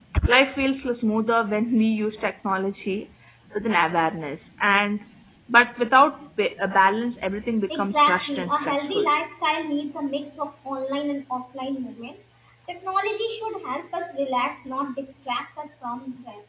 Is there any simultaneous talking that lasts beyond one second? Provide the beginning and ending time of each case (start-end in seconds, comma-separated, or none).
7.8-9.1